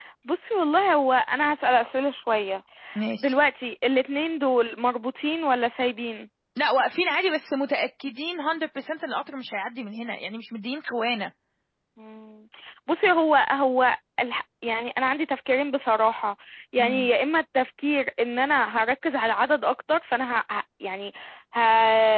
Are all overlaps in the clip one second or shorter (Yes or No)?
Yes